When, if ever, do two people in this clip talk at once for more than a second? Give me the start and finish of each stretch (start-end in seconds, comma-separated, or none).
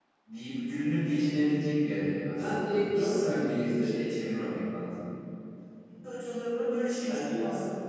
2.4-4.0